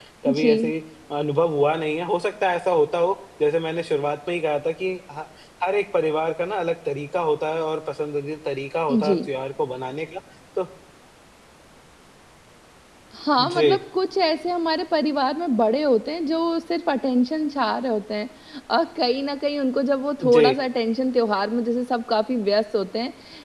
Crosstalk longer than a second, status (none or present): none